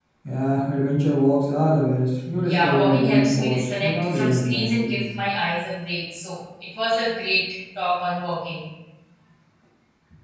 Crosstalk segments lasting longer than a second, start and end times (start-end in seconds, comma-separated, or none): 2.4-4.9